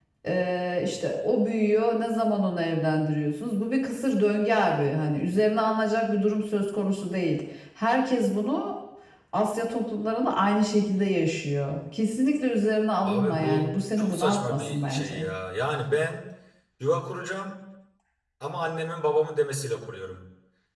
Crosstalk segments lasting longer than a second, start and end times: 13.0-15.3

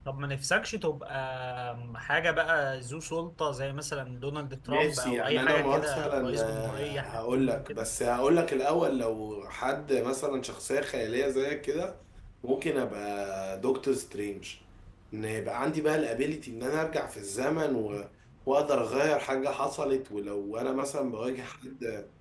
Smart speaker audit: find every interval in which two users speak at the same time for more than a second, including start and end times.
4.7-7.9

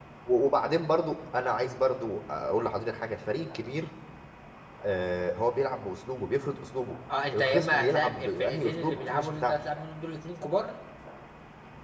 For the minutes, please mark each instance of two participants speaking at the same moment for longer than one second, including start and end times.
7.3-9.6

